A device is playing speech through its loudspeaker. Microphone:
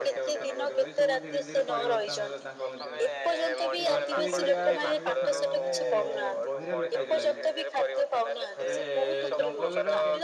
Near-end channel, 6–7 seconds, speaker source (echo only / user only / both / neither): both